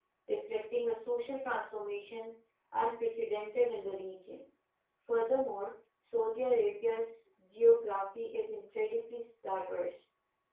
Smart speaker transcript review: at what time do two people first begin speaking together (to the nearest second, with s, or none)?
none